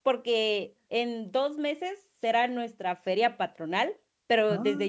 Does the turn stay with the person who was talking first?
Yes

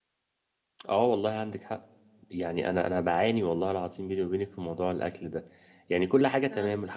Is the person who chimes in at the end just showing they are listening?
Yes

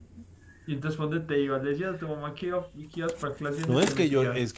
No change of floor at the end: No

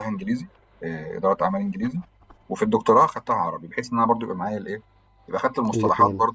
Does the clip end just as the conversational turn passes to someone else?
No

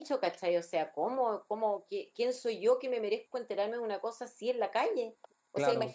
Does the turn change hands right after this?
No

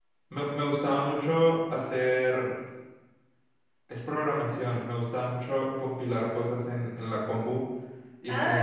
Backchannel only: No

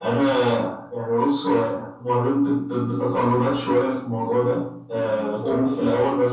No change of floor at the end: Yes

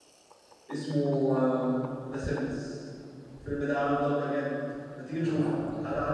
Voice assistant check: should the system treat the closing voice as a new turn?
No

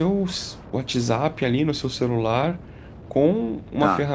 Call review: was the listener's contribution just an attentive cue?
Yes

